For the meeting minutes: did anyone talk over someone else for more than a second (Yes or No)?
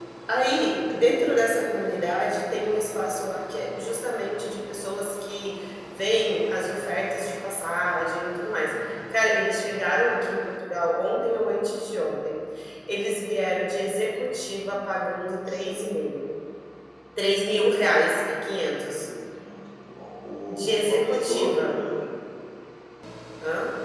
Yes